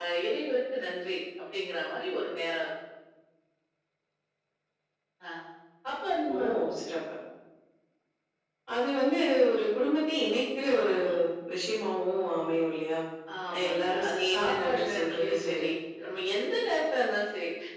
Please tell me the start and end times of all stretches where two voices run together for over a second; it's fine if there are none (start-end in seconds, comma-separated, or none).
13.5-15.7